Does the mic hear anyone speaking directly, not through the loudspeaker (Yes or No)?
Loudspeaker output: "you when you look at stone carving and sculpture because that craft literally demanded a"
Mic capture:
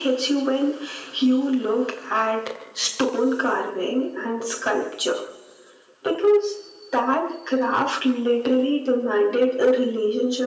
No